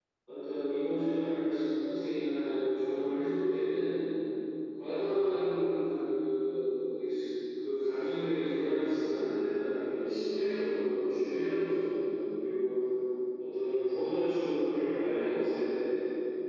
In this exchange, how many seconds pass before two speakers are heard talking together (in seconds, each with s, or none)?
none